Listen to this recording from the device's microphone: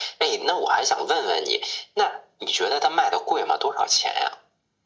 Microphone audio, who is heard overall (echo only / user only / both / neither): echo only